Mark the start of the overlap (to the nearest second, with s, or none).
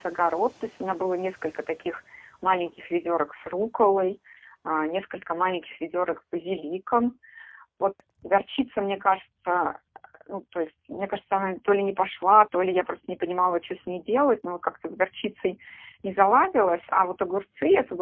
none